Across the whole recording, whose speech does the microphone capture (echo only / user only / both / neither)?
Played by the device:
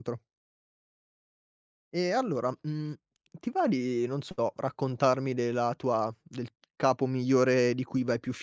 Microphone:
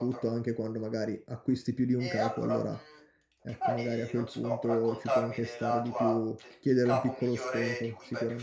both